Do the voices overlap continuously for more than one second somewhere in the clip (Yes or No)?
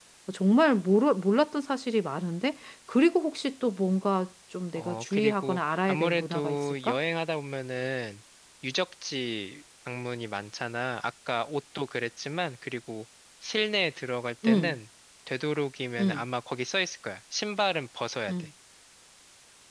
Yes